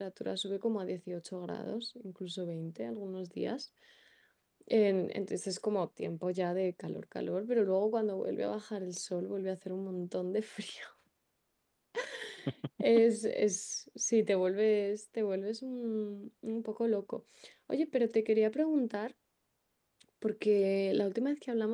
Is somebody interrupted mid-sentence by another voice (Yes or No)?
No